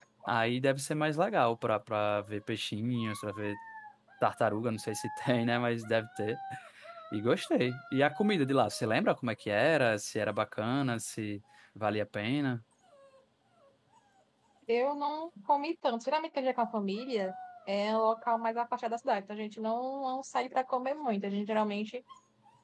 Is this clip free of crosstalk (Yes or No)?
Yes